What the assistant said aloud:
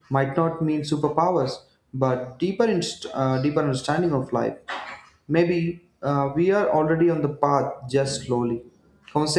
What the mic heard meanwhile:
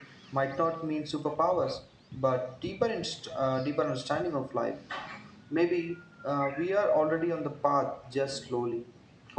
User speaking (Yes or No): No